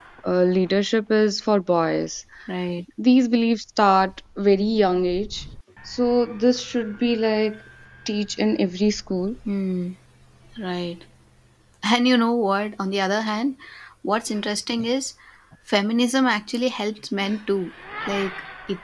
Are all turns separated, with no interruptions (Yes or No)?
Yes